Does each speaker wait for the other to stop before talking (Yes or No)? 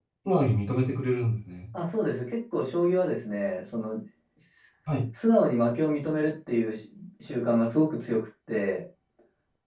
Yes